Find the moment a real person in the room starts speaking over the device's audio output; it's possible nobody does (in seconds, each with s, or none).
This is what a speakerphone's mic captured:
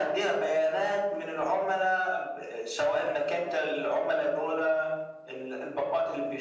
none